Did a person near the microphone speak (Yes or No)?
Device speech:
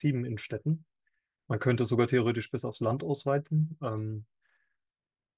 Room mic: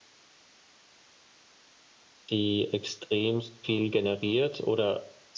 Yes